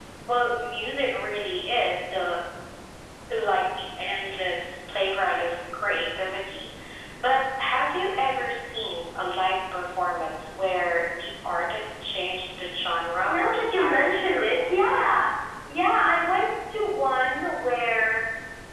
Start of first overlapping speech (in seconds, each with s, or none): 13.3 s